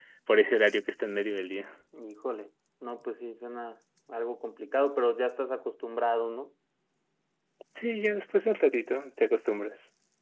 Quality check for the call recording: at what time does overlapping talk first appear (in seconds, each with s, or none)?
none